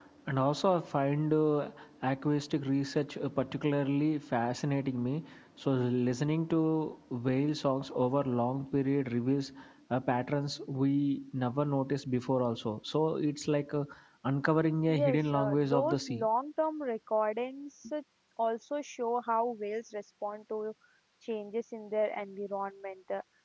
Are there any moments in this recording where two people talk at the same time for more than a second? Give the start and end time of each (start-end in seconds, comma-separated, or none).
15.0-16.3